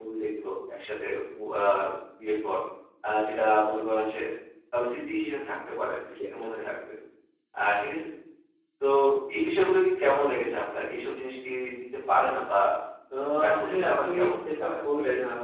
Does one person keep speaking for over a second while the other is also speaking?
Yes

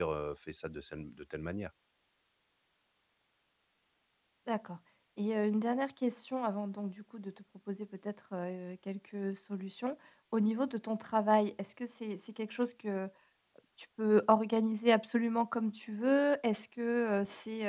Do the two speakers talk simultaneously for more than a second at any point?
No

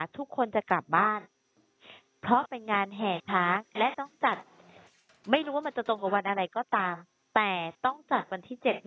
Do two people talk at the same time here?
No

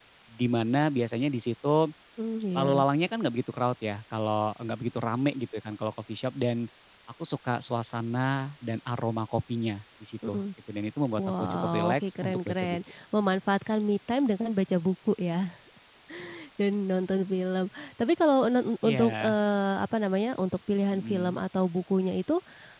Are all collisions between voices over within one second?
No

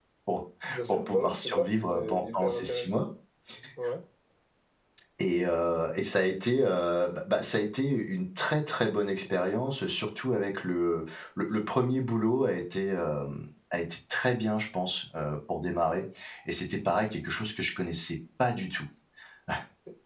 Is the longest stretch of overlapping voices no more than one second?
No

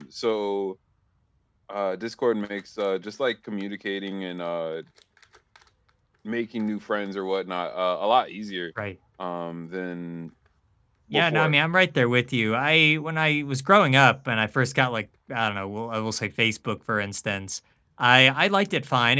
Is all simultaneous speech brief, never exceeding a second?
Yes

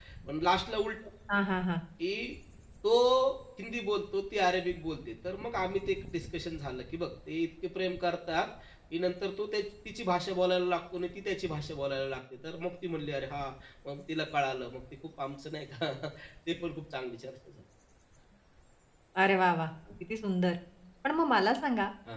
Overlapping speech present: No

